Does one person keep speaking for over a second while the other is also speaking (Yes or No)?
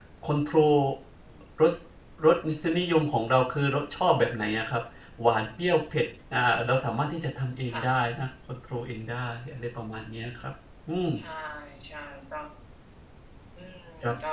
No